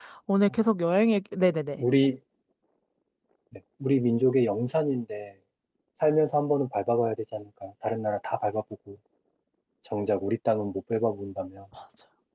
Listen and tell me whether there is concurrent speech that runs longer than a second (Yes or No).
No